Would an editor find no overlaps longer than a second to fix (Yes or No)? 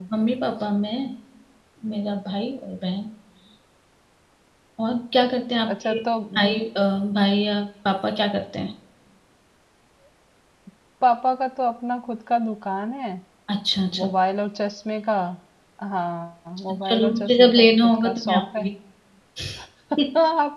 No